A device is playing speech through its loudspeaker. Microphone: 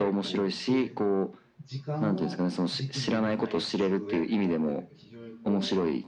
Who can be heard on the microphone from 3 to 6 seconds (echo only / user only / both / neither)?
both